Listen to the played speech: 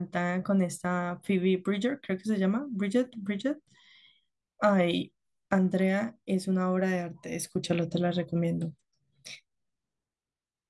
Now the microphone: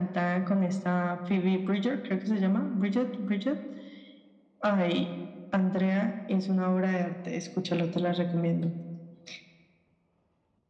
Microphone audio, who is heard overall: echo only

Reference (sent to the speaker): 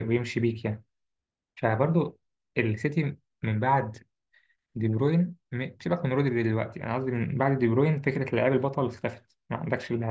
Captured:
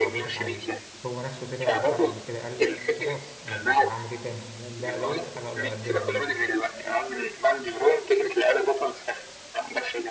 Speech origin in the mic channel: both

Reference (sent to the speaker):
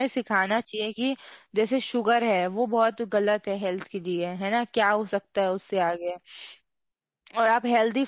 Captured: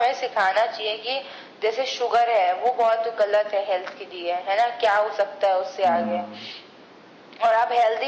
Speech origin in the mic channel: both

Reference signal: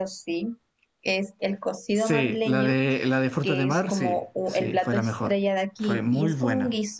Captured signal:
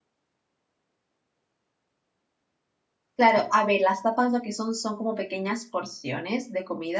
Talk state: user only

